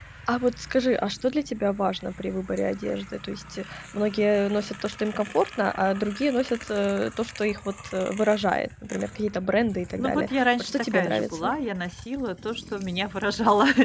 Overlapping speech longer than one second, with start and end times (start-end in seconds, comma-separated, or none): 10.0-11.5